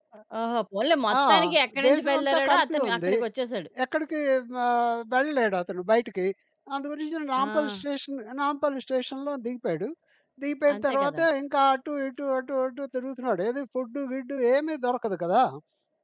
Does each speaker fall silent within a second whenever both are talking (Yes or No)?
No